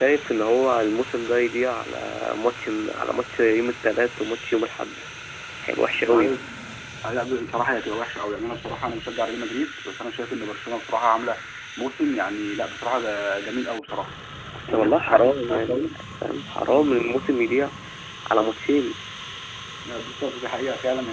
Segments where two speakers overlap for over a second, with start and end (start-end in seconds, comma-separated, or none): 14.7-15.9